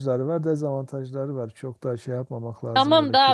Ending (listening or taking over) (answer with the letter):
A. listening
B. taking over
B